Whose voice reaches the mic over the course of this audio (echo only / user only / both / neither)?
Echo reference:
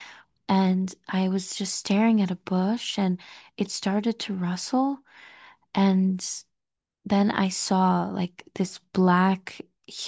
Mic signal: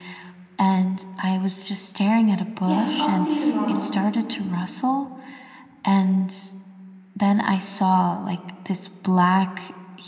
both